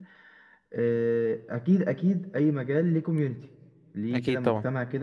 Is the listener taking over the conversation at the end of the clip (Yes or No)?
No